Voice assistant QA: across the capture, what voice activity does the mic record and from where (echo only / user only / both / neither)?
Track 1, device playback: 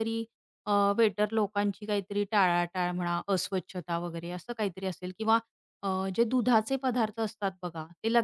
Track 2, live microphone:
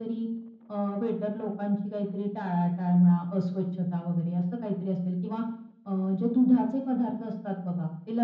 echo only